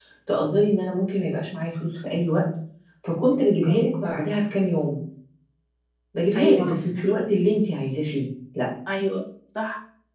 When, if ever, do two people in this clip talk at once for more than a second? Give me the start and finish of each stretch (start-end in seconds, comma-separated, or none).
none